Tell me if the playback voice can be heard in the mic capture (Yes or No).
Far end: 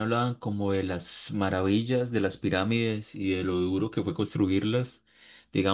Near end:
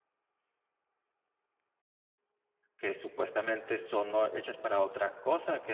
No